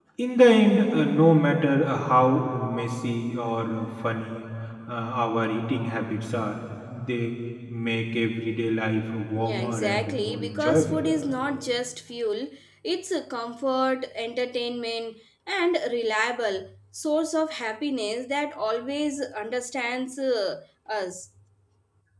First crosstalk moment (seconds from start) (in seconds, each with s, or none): 9.4 s